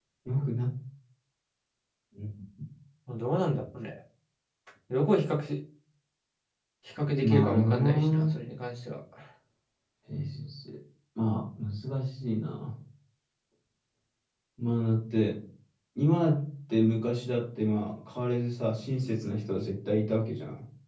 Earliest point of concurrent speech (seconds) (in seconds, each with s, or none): 7.2 s